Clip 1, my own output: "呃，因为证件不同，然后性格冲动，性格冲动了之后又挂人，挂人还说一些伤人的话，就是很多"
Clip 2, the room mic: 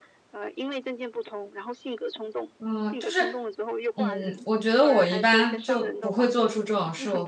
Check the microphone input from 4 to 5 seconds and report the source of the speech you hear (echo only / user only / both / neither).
both